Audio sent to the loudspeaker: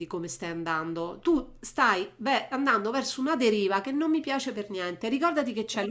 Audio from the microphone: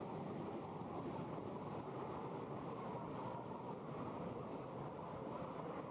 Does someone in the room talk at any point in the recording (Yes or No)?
No